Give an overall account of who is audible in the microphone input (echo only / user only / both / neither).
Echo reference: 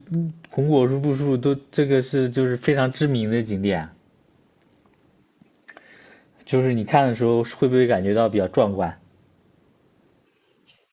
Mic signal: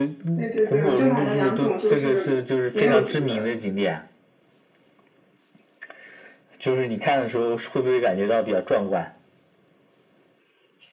both